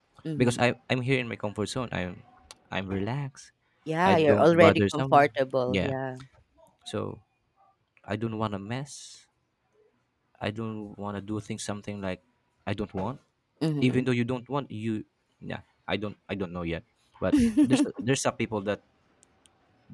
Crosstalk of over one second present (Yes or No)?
Yes